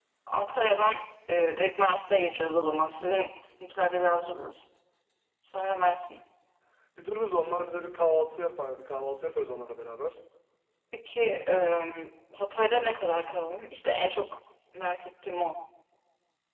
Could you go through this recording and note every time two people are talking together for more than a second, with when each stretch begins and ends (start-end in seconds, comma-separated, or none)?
none